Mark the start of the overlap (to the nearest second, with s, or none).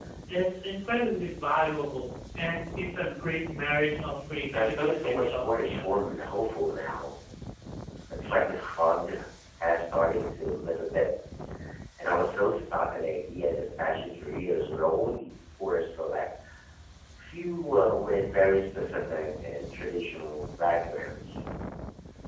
5 s